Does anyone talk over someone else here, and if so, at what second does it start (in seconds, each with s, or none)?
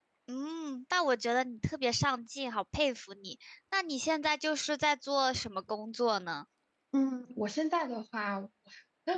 none